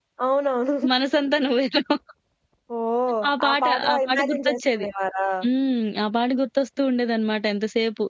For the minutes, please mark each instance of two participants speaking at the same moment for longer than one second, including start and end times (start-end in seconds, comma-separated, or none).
3.4-4.8